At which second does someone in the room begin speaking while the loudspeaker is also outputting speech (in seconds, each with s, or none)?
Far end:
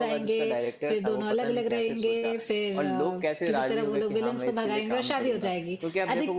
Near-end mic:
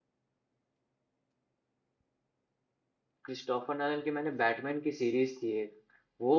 3.2 s